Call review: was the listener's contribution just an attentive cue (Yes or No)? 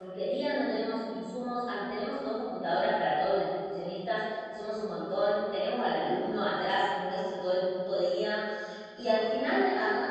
Yes